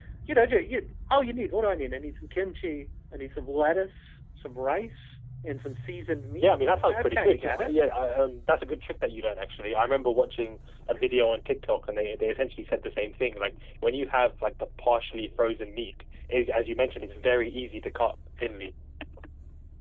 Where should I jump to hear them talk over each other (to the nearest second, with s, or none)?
6 s